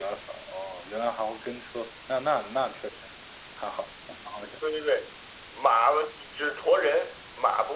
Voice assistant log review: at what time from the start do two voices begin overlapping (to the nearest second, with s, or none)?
none